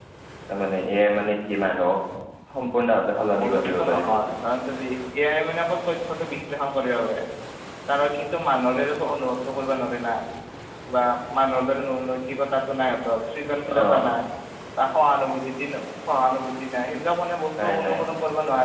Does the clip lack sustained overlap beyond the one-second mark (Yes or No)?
No